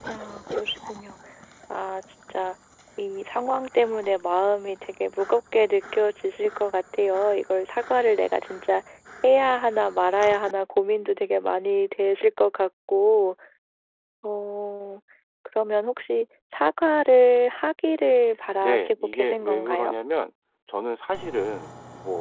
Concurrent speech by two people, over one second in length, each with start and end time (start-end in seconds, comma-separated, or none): 18.6-19.9